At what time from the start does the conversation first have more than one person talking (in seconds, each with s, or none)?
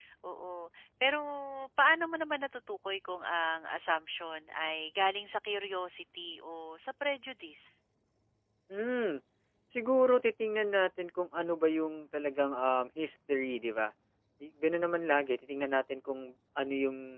none